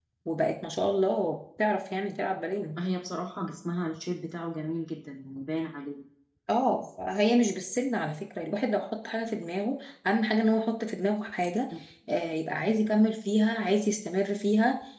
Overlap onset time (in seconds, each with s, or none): none